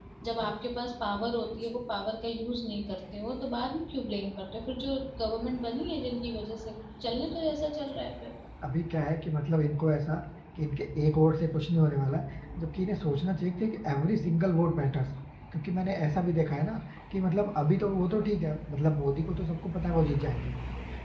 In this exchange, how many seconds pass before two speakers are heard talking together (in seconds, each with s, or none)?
none